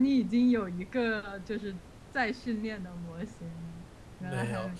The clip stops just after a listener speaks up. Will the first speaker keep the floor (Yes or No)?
No